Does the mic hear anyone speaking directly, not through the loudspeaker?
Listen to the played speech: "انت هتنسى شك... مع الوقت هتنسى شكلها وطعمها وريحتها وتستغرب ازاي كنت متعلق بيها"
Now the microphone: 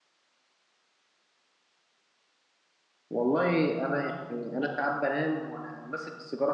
Yes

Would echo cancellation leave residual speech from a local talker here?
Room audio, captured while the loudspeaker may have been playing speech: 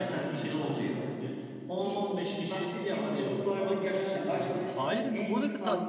Yes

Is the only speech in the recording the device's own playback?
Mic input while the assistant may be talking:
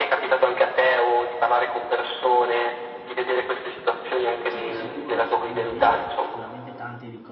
No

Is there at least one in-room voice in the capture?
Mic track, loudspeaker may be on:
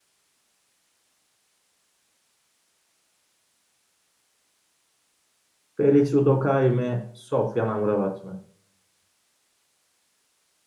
Yes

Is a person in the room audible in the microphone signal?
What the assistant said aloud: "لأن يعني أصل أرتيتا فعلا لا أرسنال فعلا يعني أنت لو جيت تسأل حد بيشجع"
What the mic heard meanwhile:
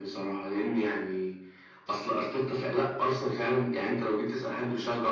No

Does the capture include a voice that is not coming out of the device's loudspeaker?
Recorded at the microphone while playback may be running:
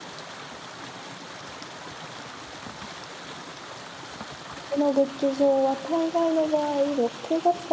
Yes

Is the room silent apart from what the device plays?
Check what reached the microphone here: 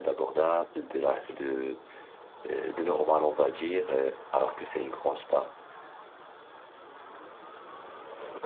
No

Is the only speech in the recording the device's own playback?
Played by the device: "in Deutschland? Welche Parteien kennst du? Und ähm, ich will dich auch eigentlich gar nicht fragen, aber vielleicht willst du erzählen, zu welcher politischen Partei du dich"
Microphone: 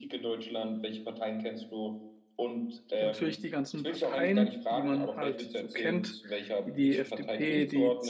No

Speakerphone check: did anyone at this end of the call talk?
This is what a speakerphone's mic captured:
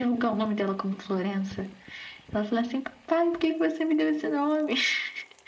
No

